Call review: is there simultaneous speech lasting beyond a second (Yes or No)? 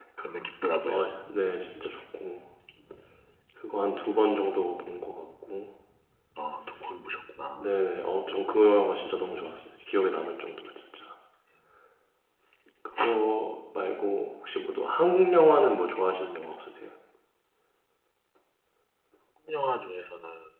No